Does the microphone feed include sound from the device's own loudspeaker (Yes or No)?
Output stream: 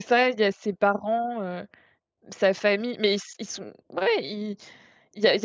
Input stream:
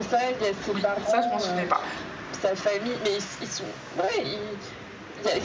Yes